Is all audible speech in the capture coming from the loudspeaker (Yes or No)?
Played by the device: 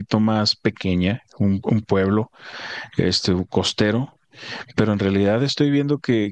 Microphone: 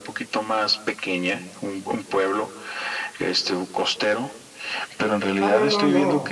No